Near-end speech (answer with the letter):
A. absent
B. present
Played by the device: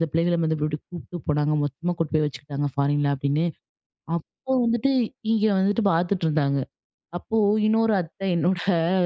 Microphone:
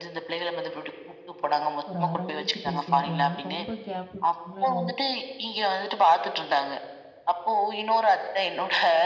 B